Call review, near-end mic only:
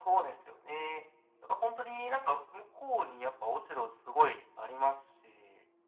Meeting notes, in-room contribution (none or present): none